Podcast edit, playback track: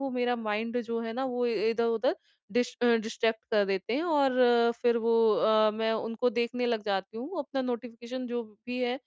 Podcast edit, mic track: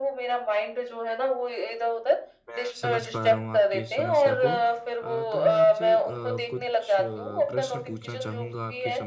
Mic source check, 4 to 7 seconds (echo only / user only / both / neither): both